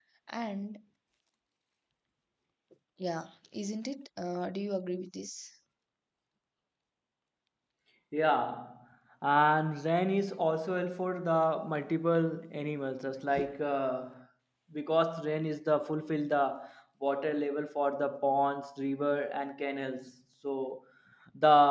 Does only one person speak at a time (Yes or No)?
Yes